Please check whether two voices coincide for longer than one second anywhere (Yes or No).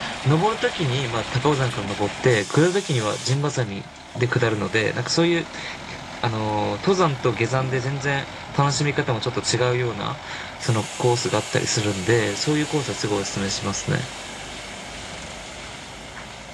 No